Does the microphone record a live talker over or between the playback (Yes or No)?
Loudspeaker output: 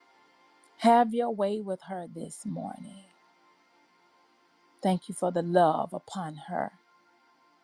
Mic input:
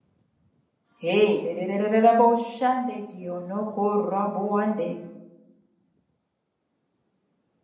Yes